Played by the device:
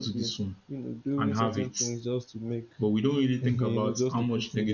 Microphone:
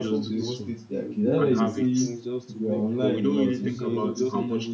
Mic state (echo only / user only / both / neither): both